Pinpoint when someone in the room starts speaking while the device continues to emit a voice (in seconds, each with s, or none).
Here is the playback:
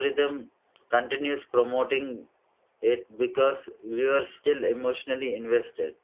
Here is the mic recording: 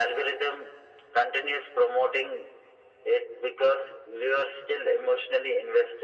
none